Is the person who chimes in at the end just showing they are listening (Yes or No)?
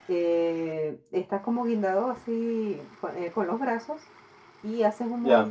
Yes